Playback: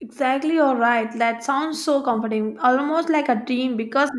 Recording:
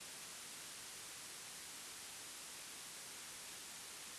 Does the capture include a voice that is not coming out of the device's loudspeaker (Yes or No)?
No